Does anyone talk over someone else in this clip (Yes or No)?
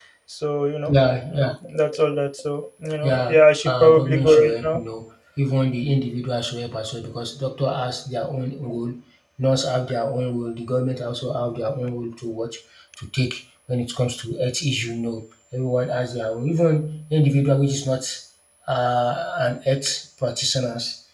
Yes